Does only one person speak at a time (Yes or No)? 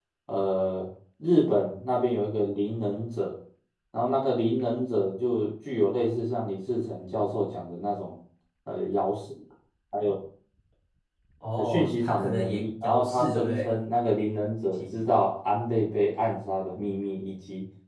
No